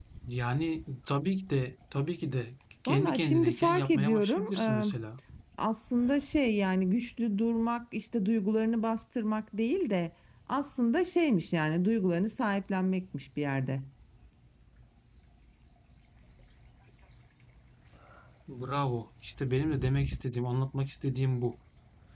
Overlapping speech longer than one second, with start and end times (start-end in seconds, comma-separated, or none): 2.9-4.8